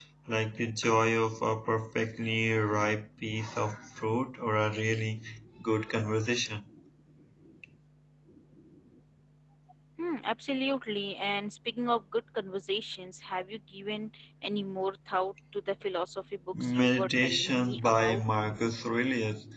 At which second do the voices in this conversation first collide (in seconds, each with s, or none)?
16.5 s